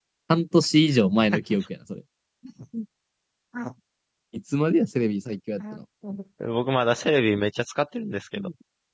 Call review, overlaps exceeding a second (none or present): none